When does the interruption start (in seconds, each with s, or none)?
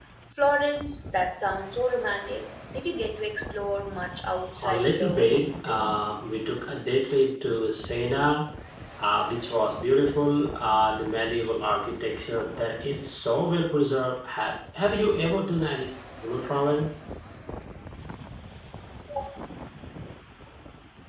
4.6 s